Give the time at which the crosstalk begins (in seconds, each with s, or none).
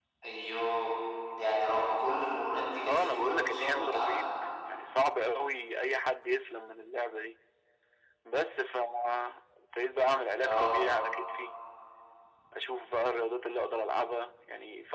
2.8 s